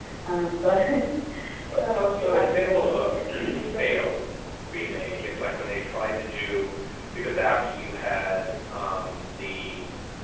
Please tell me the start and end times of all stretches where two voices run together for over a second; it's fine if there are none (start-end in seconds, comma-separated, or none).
1.9-3.9